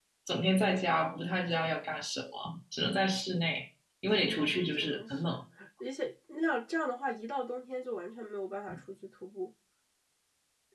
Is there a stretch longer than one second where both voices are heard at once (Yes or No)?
Yes